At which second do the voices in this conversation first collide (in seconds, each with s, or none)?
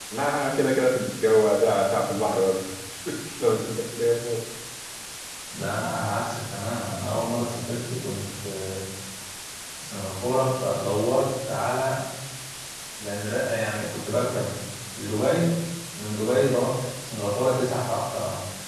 none